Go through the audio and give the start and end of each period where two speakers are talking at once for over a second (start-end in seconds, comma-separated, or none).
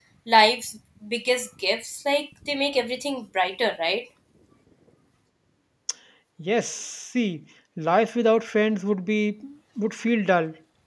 none